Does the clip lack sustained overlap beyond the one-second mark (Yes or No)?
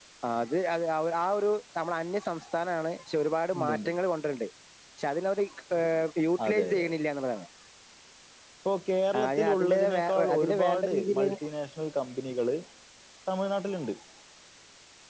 No